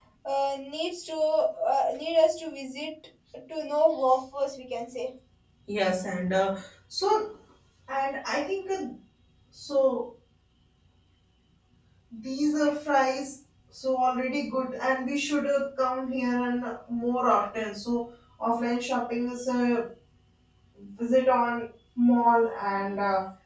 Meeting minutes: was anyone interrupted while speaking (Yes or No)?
No